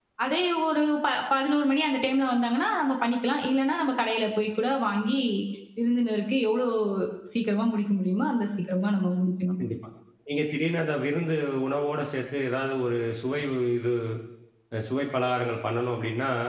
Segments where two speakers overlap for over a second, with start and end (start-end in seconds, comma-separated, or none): none